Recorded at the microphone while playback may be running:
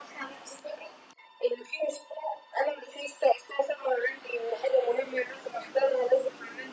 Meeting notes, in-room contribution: none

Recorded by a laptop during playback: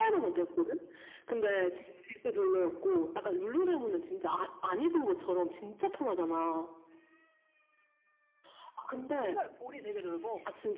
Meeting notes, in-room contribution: present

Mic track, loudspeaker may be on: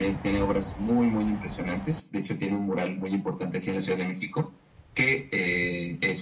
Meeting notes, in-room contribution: none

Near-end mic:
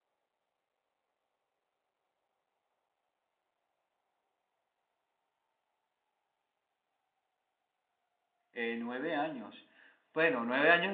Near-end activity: present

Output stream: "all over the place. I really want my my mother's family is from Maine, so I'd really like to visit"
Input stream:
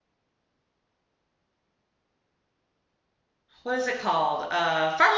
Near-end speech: present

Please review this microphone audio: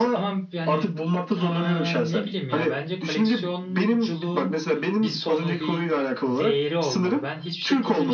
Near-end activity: present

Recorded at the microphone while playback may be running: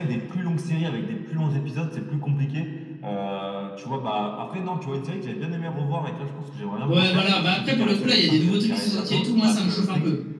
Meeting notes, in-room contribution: present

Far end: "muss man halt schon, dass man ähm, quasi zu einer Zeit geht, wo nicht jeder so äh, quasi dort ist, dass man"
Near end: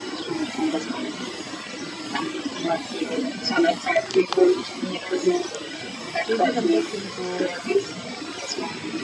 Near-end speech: present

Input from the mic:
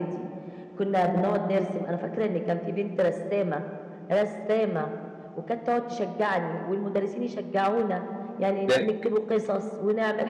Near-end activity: present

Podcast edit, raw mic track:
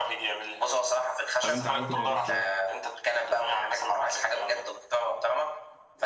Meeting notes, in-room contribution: present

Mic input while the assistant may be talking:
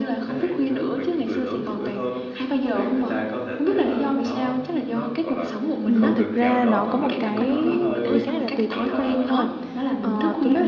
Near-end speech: present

